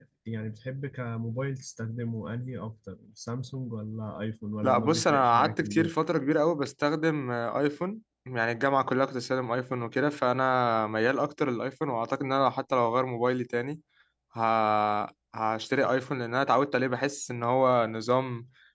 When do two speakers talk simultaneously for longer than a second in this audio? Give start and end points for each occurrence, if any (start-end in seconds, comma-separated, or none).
4.6-5.9